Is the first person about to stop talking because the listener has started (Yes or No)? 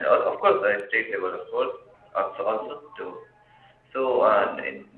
No